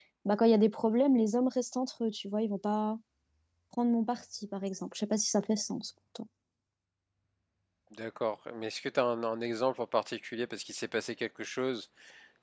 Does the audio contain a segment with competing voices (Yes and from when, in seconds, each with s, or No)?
No